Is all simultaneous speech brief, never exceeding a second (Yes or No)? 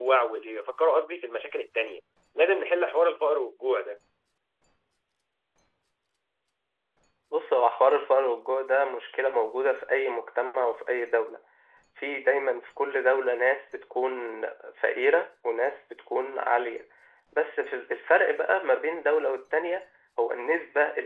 Yes